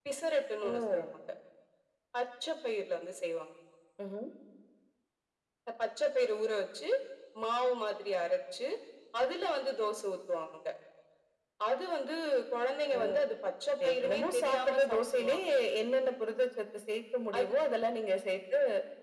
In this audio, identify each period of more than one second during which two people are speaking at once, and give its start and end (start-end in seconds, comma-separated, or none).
13.8-15.3